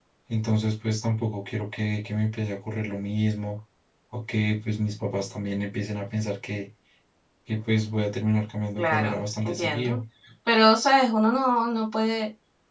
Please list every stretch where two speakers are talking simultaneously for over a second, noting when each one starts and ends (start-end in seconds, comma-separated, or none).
8.8-10.0